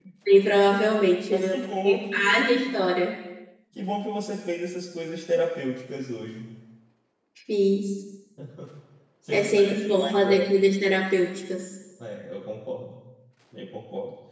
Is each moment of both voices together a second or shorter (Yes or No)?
No